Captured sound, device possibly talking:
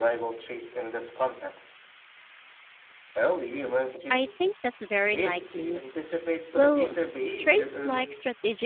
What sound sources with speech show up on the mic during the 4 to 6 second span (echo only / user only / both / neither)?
both